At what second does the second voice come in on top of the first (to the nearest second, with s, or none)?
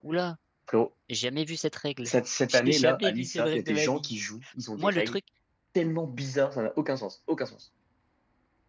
3 s